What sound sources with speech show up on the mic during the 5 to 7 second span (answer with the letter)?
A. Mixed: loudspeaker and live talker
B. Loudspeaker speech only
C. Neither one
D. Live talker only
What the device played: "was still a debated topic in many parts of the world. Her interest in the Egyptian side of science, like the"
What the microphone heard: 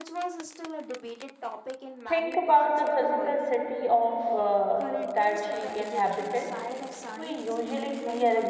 A